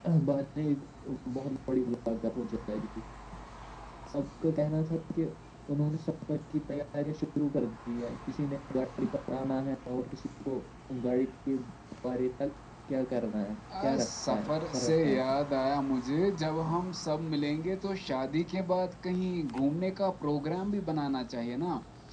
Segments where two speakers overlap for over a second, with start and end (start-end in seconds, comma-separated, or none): 13.8-15.2